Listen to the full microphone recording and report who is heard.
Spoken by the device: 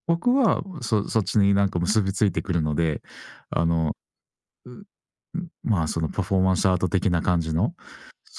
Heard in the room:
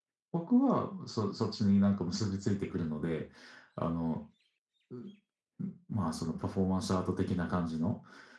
echo only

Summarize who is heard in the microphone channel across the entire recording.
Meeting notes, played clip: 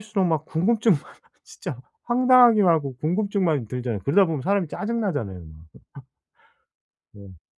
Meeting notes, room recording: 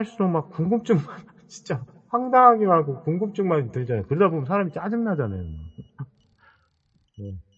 echo only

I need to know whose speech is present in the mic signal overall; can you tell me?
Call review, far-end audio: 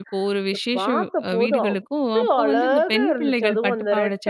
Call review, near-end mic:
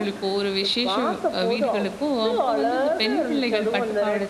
echo only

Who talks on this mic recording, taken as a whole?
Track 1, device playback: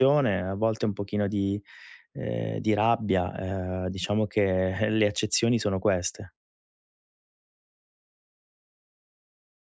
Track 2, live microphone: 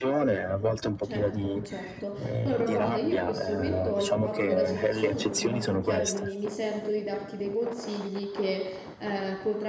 both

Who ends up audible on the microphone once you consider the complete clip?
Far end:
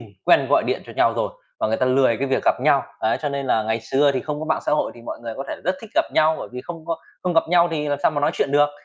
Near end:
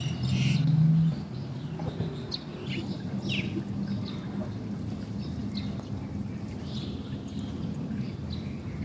neither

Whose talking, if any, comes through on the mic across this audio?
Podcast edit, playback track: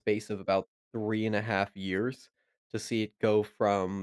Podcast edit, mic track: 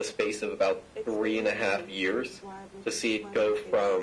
both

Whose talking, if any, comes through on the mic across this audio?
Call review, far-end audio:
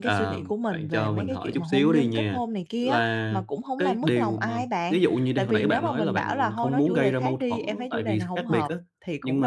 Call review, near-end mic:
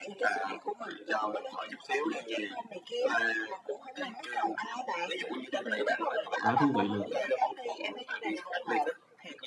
both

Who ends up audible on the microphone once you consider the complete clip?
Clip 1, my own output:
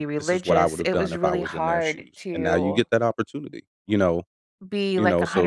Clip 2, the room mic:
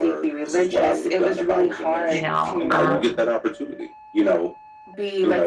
both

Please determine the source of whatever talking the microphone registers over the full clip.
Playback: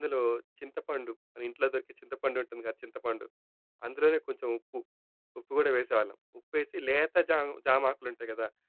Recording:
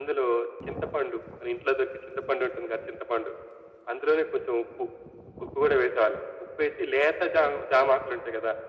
echo only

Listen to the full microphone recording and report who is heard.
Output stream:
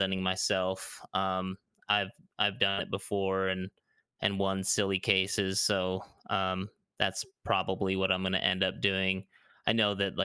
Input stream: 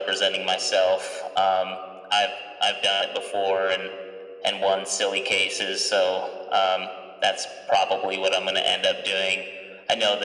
echo only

